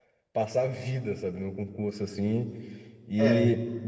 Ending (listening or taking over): listening